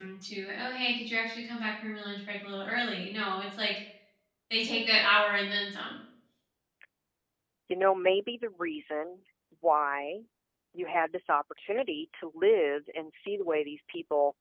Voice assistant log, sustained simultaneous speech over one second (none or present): none